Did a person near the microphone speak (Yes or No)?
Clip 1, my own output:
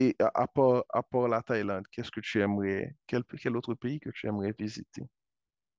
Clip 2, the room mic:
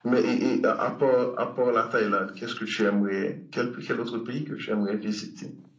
No